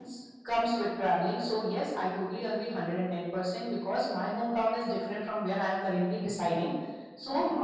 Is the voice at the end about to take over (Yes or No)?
No